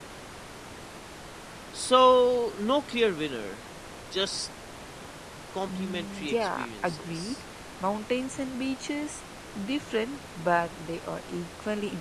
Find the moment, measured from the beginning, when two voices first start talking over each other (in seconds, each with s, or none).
5.7 s